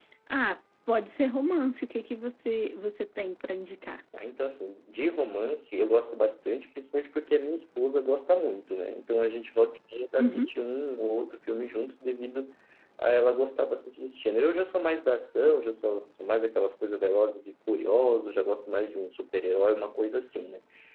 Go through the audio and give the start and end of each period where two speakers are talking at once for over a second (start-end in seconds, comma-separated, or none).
none